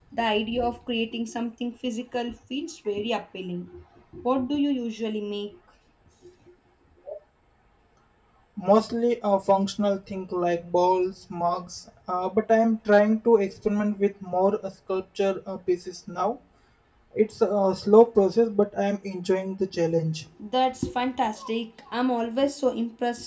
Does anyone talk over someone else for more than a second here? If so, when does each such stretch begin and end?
none

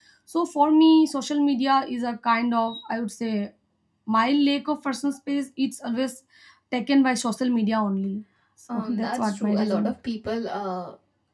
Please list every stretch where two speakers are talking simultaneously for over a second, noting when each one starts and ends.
8.7-9.9

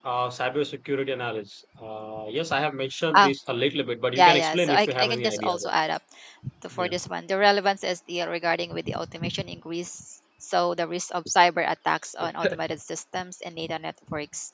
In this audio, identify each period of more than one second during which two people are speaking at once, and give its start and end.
4.2-5.7

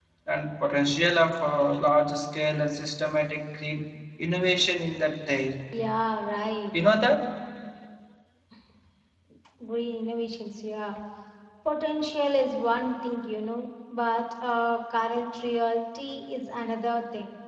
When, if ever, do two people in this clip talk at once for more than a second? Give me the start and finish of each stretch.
none

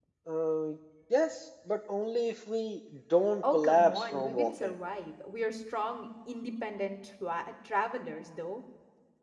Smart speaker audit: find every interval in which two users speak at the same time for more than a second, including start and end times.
3.4-4.7

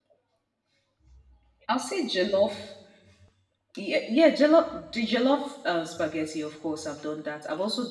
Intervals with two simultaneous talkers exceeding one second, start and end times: none

